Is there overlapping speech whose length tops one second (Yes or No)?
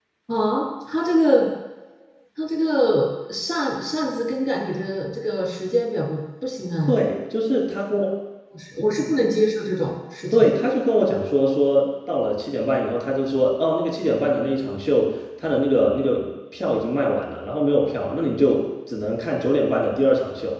No